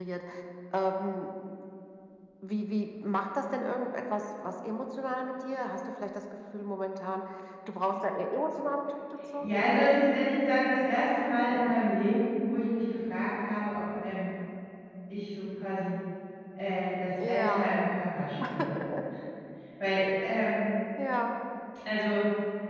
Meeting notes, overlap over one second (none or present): none